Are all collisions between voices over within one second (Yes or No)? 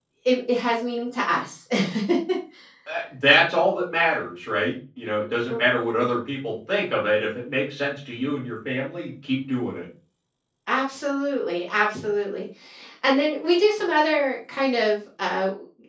Yes